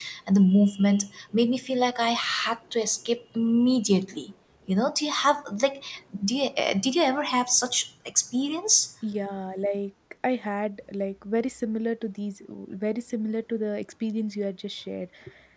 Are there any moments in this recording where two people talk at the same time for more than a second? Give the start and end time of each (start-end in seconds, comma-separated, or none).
none